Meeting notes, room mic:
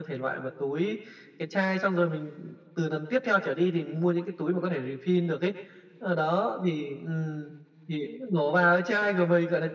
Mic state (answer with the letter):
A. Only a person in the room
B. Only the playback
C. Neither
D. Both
B